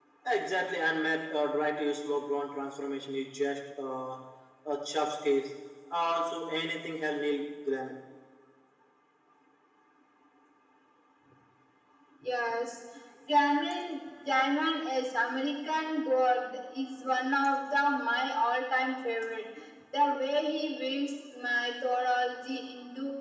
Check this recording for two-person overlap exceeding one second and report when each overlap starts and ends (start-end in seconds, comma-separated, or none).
none